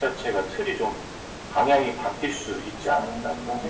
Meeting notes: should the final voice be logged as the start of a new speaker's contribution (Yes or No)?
Yes